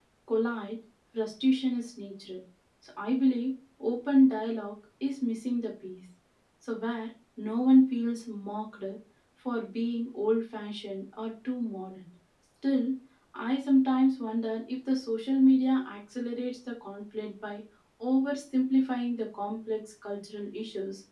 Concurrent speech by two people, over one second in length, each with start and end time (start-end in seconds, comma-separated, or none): none